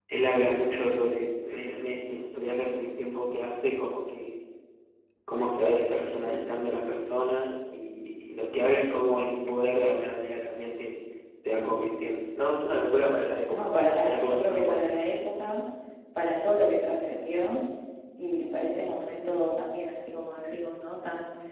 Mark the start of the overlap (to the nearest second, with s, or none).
14 s